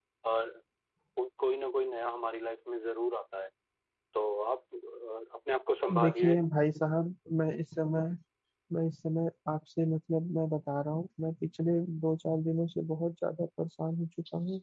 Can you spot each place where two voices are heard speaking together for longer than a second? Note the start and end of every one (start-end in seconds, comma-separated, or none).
none